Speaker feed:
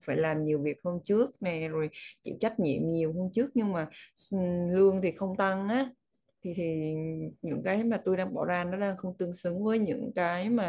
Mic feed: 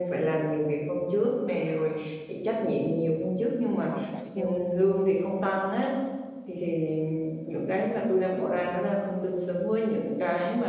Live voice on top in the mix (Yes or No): No